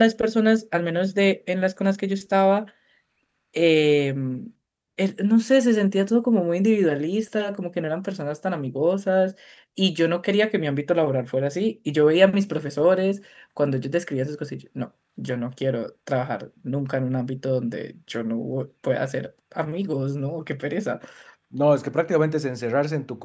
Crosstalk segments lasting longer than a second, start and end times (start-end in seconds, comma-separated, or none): none